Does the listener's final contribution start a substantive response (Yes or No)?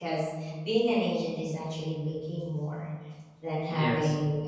No